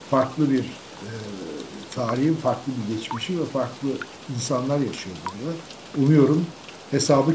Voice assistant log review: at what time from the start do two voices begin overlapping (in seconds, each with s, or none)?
none